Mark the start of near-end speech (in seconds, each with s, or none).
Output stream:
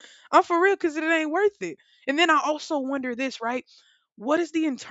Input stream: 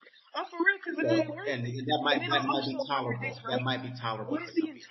1.0 s